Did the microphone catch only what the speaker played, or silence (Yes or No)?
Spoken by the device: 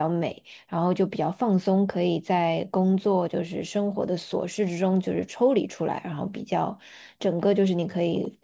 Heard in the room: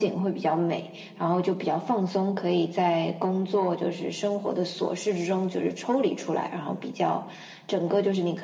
Yes